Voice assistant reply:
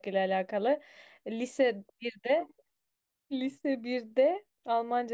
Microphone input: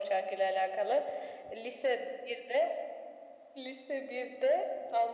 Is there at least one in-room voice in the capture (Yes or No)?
No